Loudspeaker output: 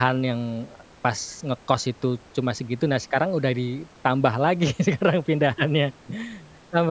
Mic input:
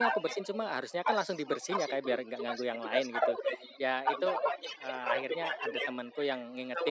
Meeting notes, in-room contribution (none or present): present